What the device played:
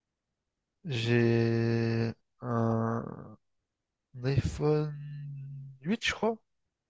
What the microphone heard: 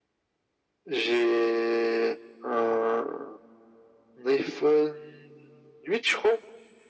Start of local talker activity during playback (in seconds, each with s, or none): none